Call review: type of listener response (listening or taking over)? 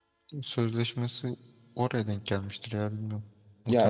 taking over